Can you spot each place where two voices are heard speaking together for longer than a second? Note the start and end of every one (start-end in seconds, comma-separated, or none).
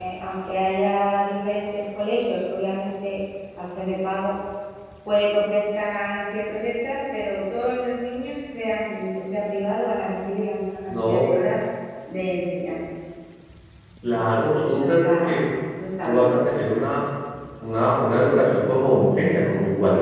14.1-15.4